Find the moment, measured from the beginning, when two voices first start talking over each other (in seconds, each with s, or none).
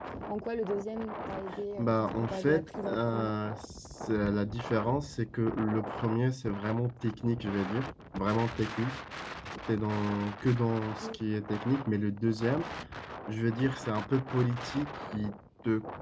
1.8 s